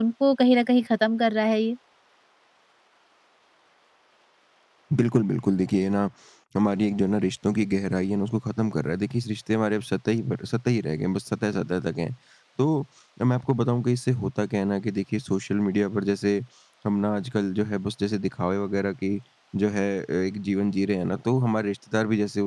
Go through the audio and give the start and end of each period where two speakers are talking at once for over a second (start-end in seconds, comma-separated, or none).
none